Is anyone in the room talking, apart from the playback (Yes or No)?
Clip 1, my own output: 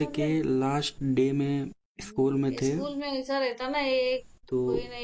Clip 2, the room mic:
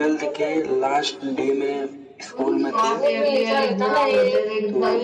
Yes